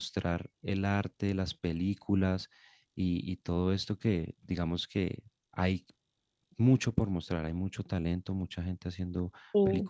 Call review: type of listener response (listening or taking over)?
listening